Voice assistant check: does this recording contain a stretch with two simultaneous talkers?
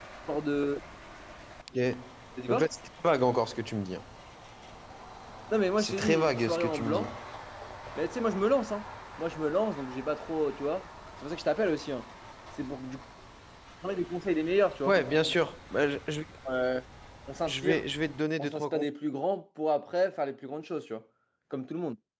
Yes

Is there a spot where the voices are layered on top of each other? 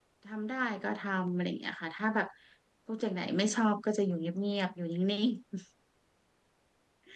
No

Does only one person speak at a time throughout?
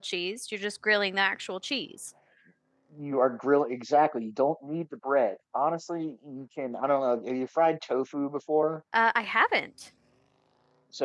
Yes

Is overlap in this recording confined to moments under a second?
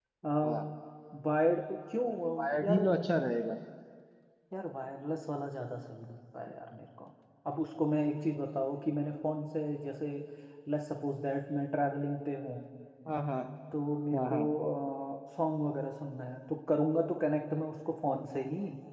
Yes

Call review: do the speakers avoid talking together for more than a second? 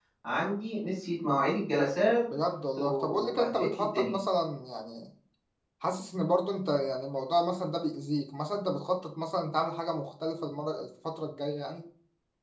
No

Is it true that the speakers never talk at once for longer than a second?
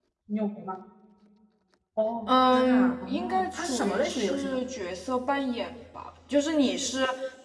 No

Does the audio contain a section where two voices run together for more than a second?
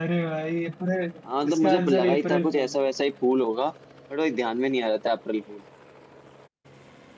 Yes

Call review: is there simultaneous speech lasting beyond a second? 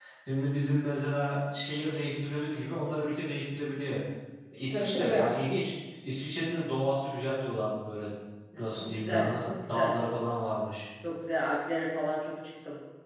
Yes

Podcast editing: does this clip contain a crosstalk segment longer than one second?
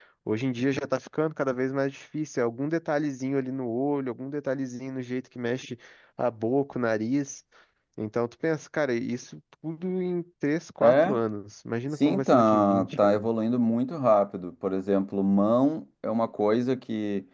Yes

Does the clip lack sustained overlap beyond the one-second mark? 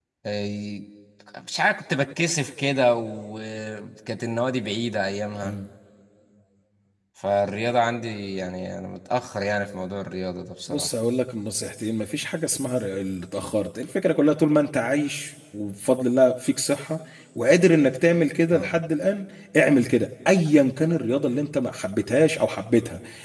Yes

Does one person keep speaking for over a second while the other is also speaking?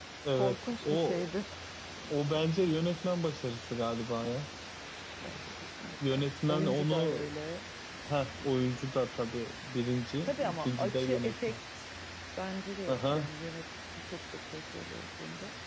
Yes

